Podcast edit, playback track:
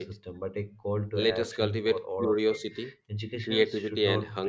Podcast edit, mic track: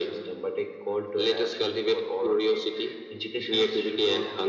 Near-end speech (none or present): none